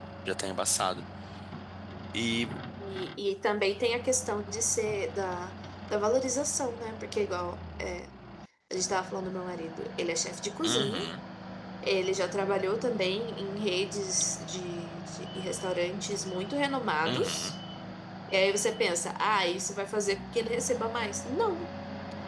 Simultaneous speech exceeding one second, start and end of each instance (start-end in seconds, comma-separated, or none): none